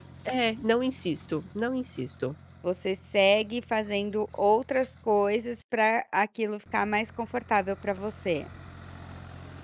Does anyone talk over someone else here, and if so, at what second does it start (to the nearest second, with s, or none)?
none